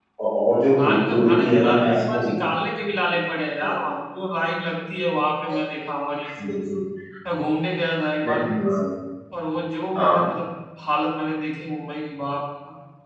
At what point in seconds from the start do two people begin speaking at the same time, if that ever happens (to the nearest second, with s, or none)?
1 s